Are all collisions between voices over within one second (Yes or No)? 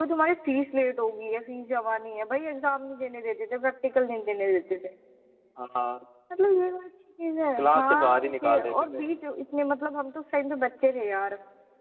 No